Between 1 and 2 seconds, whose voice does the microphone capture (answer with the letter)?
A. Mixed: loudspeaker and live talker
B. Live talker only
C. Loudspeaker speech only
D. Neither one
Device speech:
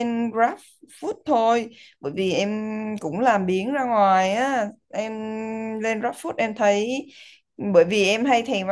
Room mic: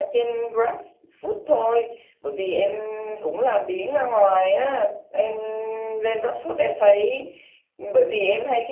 C